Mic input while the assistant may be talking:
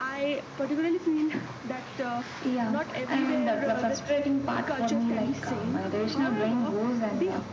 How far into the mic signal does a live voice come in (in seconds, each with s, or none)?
none